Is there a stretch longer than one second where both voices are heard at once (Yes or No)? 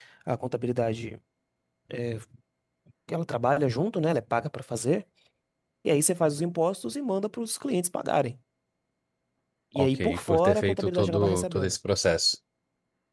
Yes